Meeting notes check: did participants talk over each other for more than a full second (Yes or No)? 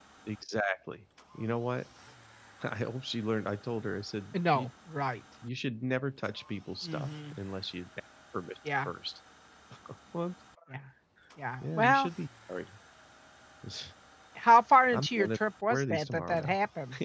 Yes